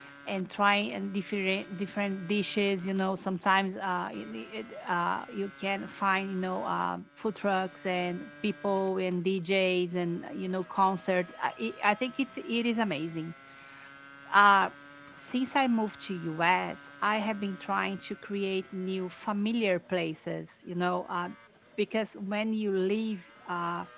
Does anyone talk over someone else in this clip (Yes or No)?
No